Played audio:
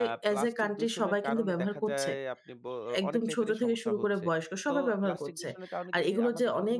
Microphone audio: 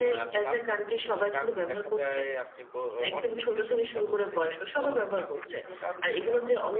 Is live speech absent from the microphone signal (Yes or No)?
Yes